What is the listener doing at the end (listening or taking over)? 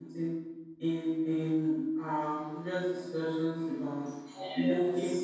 listening